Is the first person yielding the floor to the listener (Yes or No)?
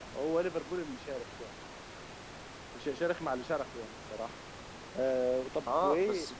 Yes